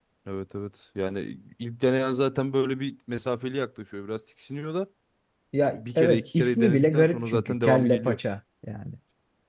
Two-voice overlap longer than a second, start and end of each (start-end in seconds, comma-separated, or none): 5.8-8.2